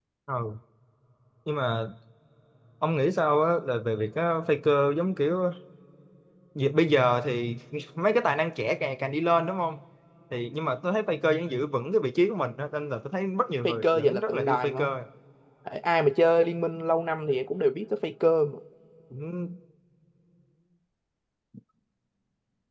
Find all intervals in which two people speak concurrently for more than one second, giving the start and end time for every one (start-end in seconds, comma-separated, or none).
13.6-15.0